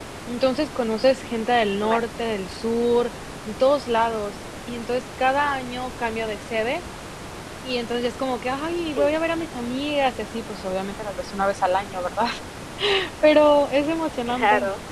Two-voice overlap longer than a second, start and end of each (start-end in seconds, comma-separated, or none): none